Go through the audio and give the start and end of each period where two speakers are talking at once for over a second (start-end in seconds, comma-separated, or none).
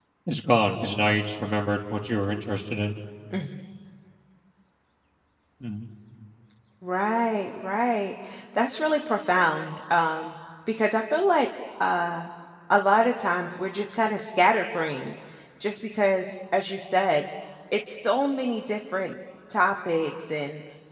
none